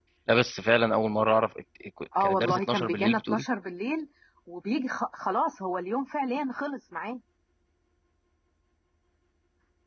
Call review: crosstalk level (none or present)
present